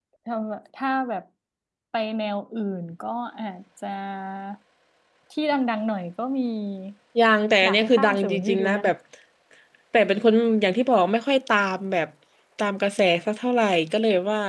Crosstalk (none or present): present